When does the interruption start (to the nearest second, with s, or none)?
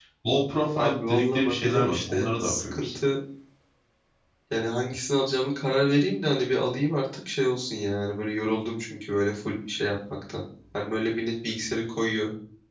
1 s